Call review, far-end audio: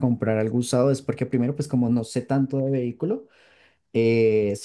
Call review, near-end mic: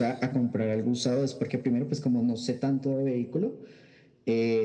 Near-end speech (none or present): none